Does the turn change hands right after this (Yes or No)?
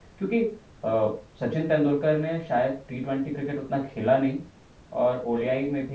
No